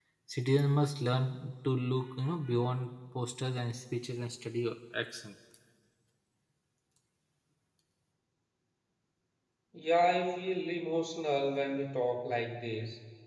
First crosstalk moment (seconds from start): none

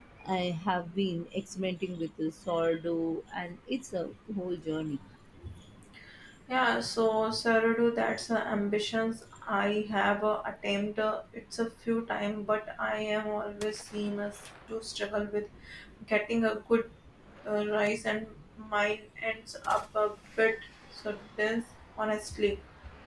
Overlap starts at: none

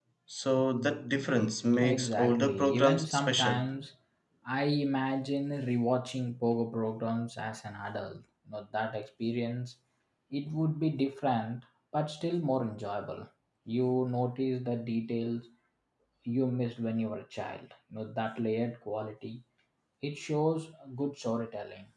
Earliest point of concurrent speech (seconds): 2 s

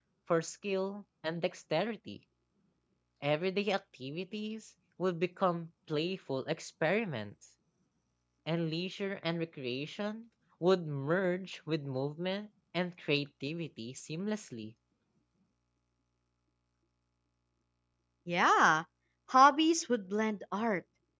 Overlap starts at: none

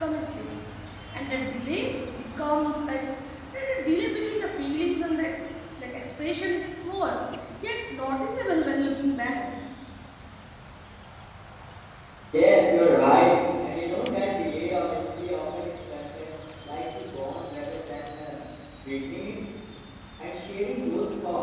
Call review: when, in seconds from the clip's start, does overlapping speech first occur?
none

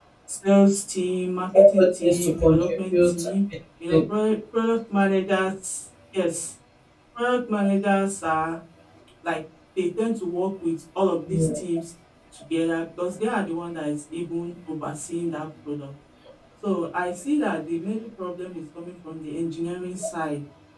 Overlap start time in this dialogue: 2 s

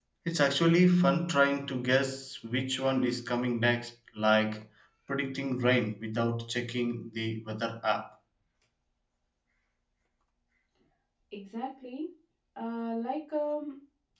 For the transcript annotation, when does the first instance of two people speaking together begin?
none

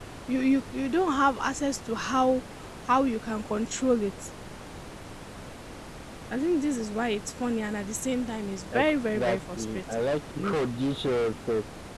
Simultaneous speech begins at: 9 s

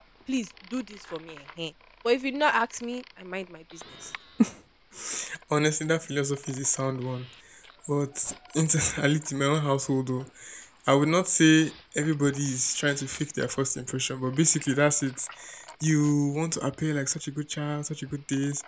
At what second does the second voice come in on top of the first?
none

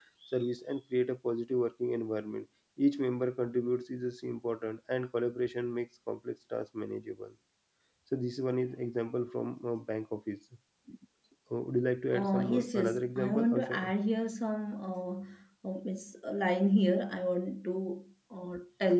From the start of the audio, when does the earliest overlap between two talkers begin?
12 s

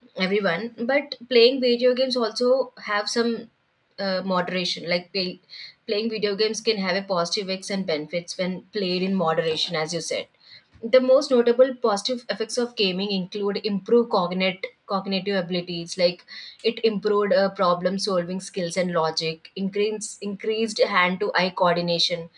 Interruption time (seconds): none

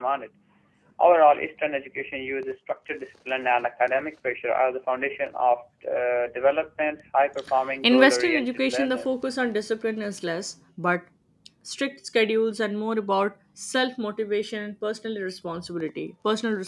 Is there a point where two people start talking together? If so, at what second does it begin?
8 s

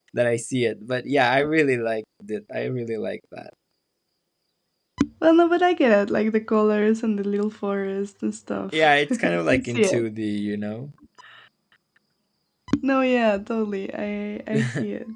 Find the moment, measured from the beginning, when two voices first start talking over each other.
9 s

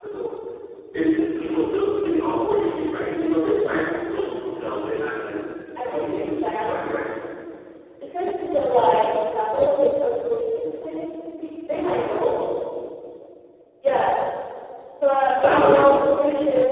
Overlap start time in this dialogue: 6 s

